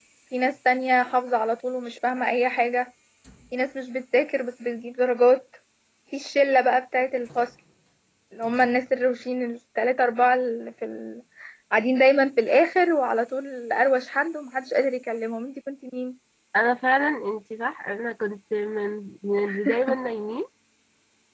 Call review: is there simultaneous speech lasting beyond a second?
No

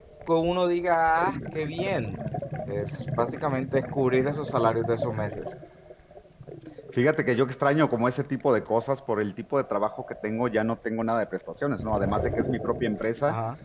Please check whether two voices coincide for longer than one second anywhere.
No

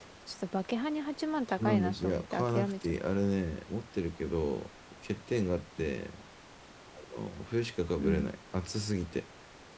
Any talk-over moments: Yes, from 1.6 s

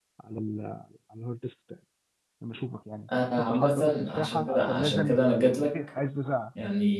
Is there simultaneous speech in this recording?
Yes, from 3.1 s

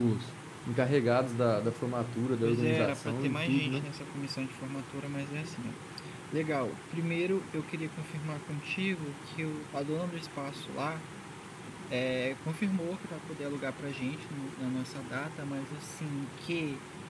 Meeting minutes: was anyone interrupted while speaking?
Yes, from 2.4 s

